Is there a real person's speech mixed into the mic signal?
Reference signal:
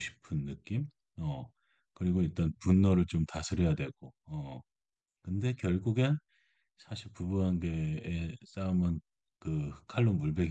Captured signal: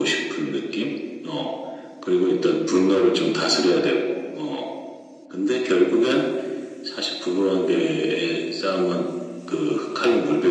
No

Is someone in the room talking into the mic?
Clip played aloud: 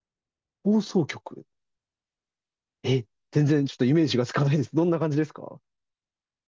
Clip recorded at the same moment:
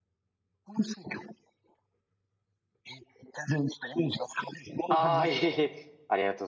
Yes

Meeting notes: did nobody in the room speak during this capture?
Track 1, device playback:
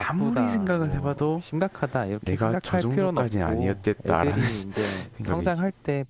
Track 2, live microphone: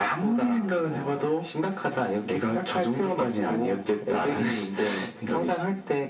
Yes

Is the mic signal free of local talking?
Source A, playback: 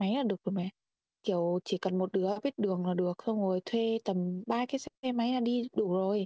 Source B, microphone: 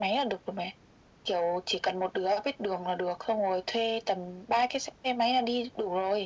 Yes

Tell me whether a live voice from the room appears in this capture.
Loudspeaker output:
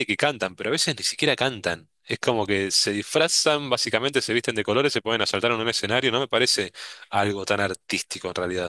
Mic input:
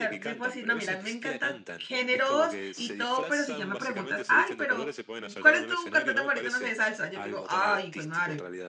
Yes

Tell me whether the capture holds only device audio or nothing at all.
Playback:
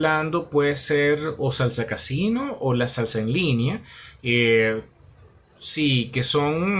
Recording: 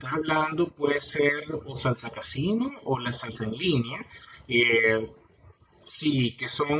Yes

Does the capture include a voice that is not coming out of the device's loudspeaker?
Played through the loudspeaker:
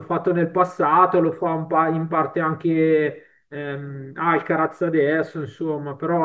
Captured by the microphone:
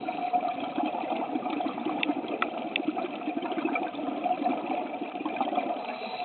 No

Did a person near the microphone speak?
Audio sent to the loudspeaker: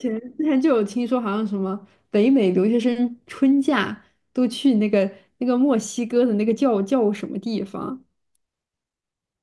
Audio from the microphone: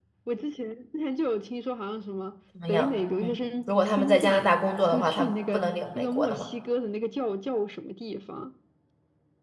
Yes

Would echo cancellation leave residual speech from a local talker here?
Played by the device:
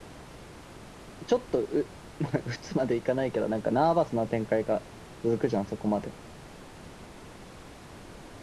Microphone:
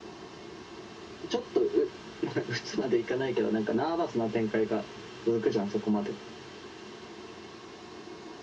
No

